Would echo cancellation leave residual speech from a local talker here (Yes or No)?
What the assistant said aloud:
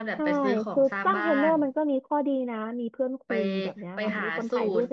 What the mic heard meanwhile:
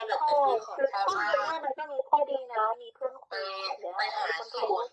No